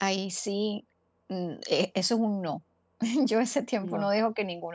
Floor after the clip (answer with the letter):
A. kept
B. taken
A